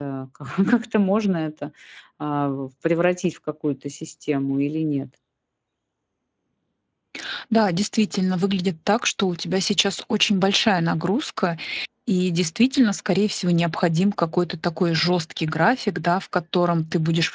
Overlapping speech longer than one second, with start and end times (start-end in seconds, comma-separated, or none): none